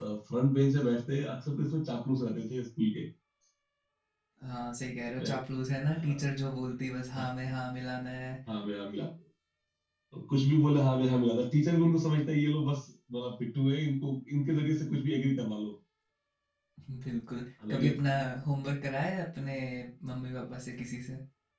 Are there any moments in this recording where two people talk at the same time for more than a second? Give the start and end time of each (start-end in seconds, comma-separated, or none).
none